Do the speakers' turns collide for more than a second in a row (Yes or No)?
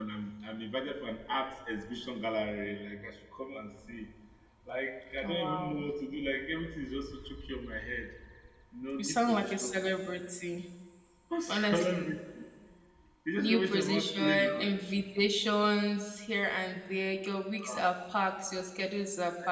Yes